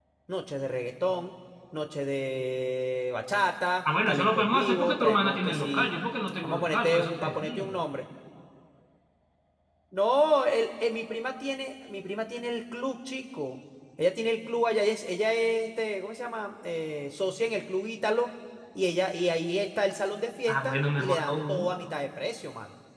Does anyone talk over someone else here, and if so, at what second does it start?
4.1 s

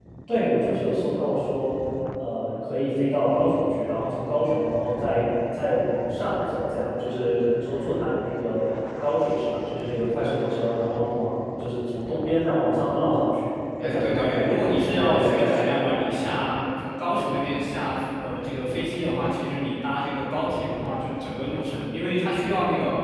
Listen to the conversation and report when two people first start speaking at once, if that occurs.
13.8 s

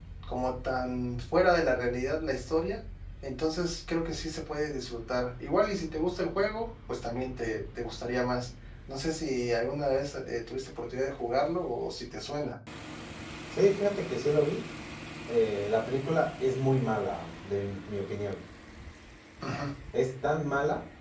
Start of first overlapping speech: none

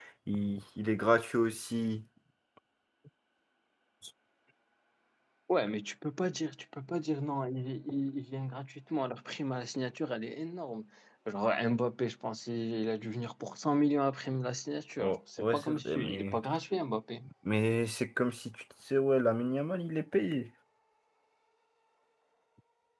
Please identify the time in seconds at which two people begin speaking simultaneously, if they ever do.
15.0 s

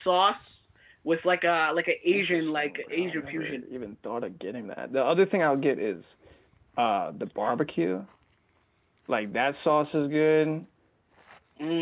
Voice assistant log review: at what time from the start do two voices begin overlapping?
2.1 s

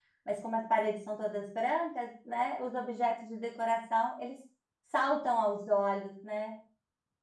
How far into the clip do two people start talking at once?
none

